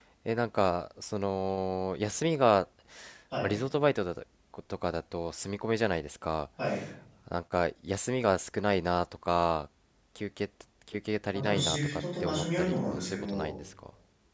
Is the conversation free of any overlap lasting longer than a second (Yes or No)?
No